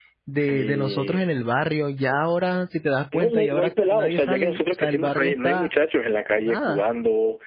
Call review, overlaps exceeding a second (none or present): present